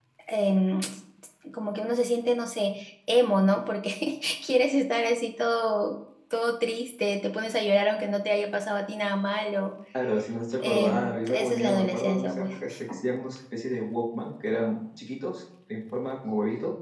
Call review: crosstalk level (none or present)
present